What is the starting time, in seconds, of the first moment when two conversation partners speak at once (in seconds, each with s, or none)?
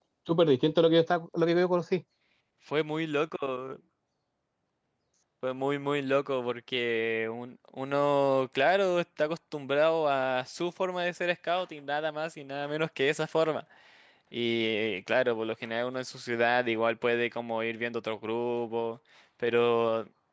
none